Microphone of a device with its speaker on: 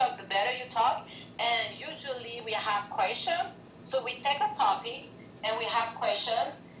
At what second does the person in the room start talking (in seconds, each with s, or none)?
none